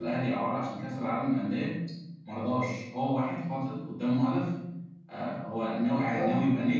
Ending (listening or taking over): listening